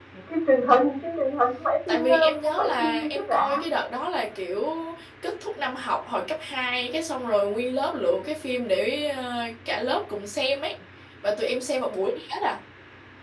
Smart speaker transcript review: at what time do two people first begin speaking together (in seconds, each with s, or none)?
1.9 s